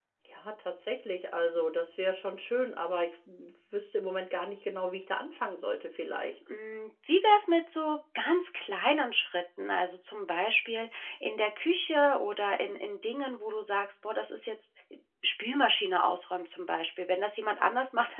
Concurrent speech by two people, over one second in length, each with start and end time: none

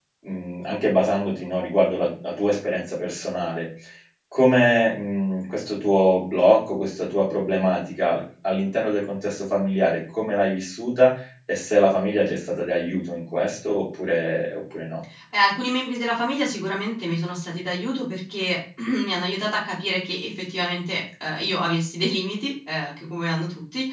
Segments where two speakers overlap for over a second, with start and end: none

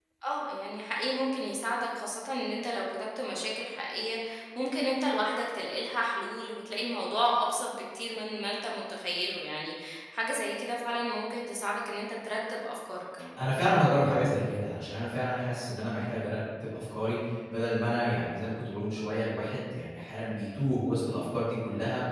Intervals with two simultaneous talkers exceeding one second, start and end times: none

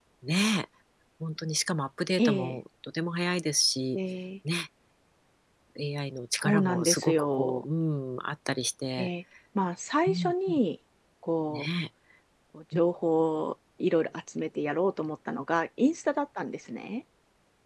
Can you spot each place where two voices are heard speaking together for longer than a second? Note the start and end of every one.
6.4-7.6

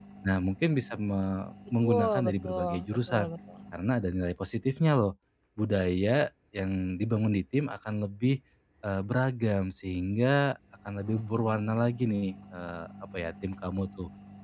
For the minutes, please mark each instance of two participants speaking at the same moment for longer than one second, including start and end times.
1.8-3.3

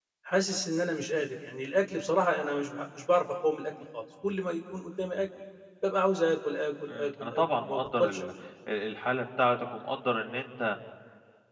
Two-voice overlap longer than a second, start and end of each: 6.9-8.2

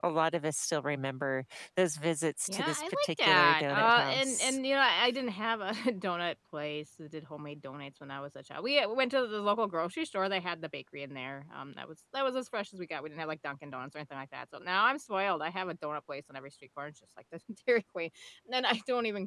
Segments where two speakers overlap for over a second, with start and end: 2.5-4.6

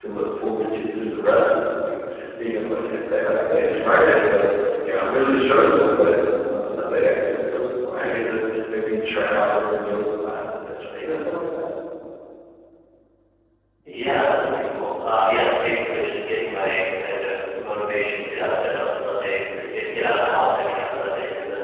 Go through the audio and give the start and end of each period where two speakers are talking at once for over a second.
none

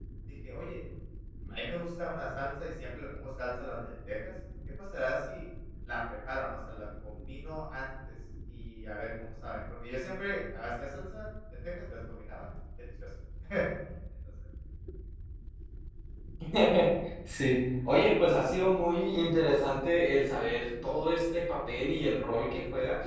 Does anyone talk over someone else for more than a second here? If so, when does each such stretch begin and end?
none

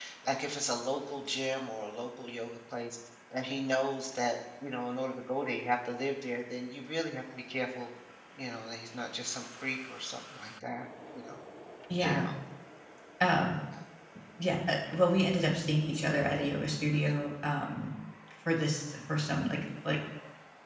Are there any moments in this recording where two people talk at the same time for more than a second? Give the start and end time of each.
none

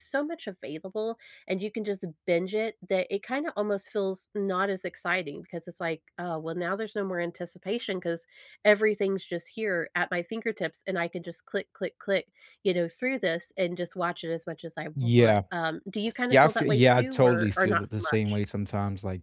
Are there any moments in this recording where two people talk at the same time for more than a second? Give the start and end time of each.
16.3-18.4

